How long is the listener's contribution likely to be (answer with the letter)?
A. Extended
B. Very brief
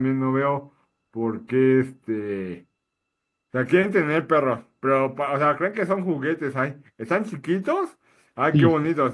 B